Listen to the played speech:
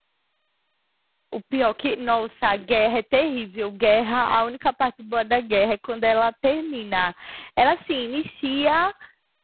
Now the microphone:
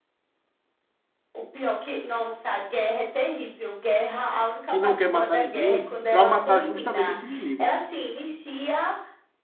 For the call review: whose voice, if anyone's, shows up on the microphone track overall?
both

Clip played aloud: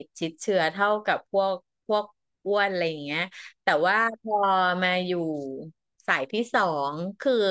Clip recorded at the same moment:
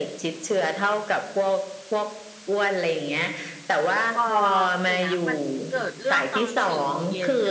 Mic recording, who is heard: both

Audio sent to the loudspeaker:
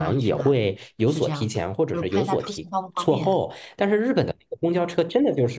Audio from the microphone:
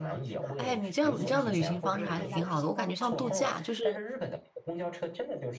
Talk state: both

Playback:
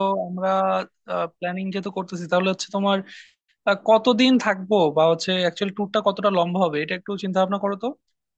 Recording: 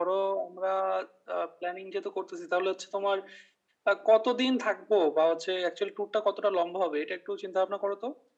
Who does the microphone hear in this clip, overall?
echo only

